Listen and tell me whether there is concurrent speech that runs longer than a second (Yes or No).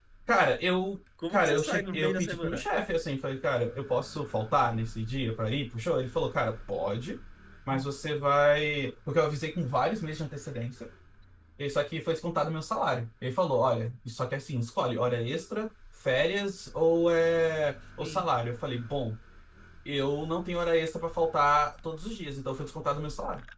Yes